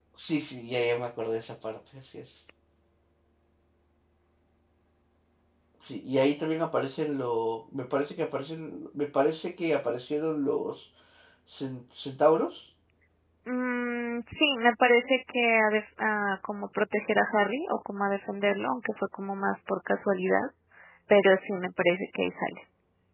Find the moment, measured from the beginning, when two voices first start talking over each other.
none

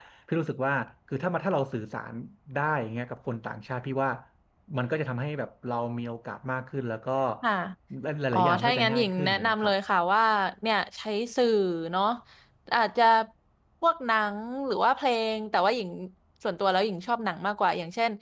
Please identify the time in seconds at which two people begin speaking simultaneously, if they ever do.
8.3 s

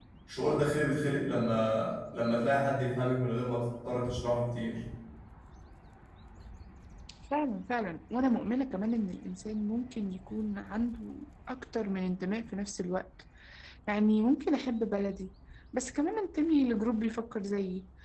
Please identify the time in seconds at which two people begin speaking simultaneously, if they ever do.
none

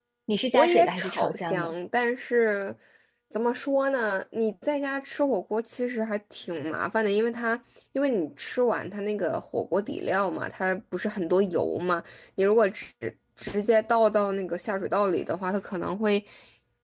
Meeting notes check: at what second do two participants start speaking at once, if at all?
0.5 s

